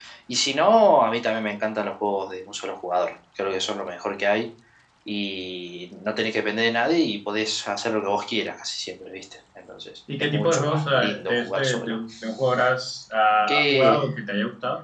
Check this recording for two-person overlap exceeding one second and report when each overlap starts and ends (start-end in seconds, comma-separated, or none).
10.3-12.0